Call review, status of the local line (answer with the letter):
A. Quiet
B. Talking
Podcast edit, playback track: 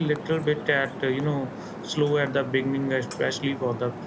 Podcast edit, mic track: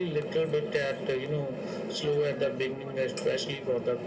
B